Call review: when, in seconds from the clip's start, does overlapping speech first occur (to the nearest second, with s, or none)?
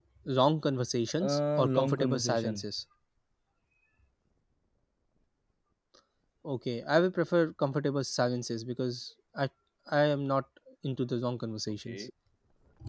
1 s